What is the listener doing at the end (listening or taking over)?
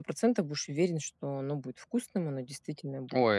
taking over